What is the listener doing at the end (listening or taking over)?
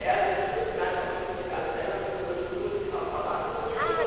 taking over